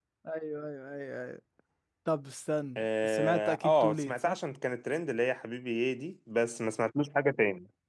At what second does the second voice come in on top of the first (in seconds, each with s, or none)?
2.8 s